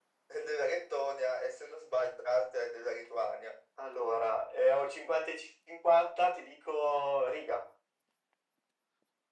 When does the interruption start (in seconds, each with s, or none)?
none